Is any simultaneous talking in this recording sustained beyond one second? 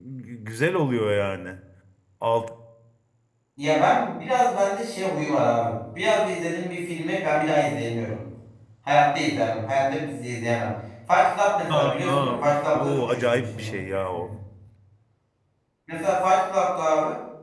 Yes, from 11.7 s

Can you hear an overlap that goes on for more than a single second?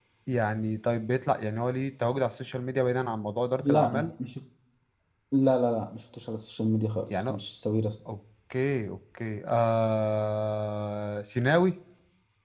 No

